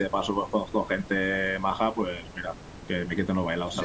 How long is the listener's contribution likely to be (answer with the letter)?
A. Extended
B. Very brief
A